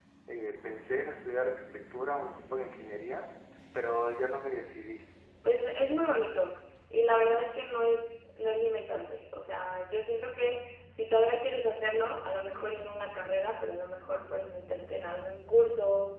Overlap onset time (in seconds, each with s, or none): none